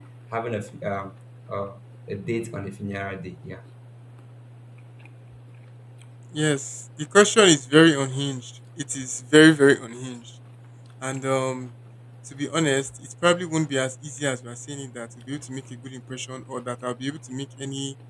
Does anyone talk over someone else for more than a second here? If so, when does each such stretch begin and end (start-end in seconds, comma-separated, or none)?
none